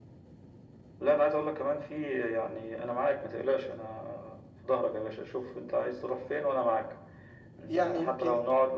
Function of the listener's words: listening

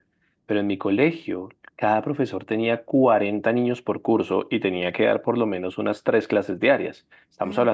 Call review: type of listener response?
listening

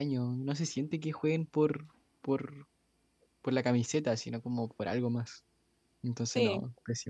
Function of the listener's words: taking over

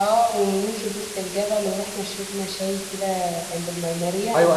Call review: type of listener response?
taking over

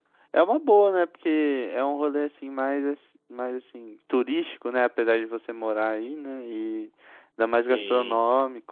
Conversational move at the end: listening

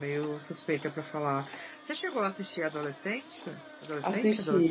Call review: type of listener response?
taking over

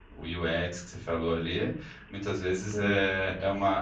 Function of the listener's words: listening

